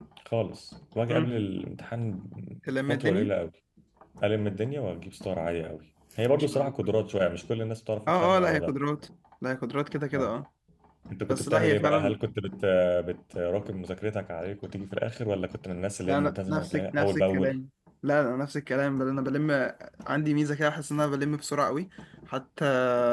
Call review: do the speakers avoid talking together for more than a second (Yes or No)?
No